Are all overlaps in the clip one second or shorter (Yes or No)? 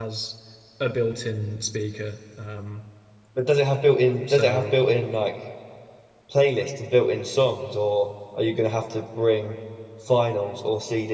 Yes